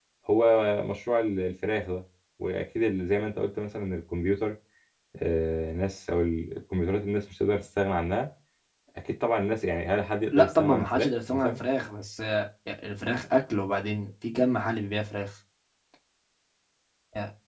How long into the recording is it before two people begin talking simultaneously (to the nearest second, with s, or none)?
10 s